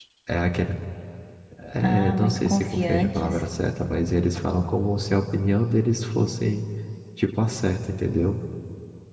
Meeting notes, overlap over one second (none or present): present